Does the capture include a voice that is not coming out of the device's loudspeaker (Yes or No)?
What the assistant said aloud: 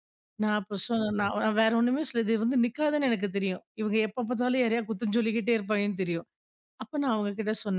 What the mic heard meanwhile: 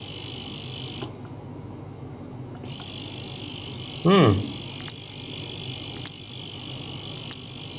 Yes